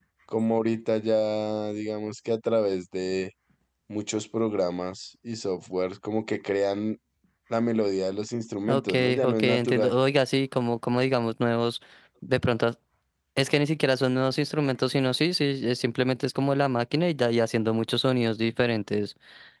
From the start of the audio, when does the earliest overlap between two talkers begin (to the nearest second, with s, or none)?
9 s